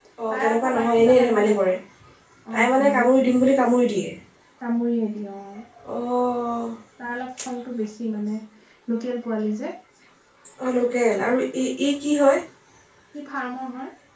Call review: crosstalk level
present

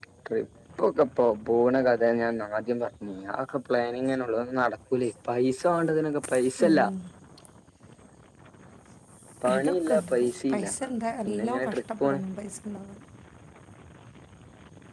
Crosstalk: present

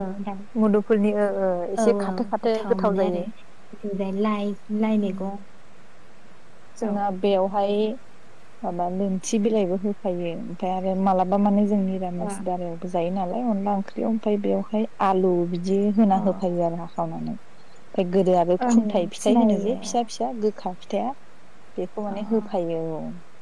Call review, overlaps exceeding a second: present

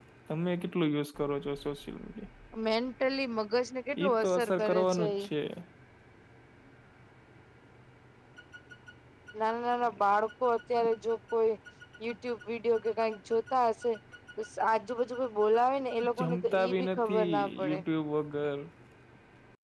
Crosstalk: present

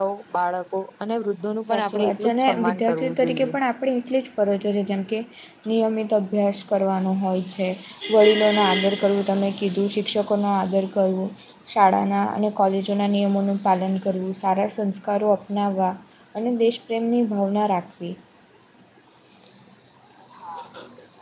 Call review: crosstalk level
present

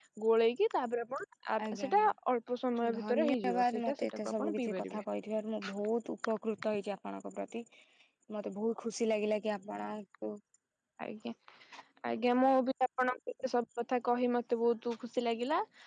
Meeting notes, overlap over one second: present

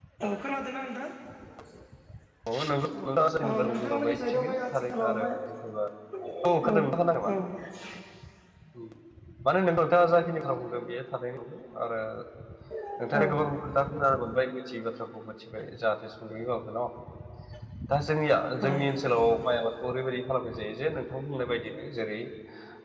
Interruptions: present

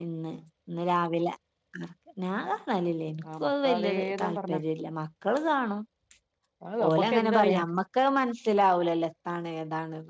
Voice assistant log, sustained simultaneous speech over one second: present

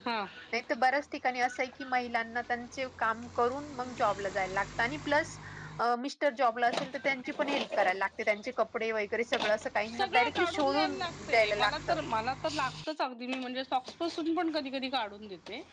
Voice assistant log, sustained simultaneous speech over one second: present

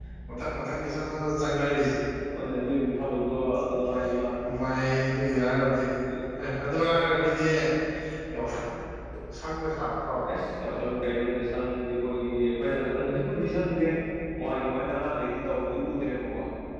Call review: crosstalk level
none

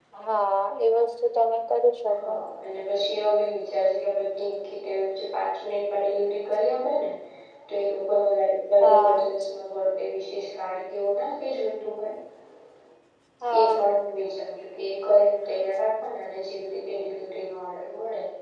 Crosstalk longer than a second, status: none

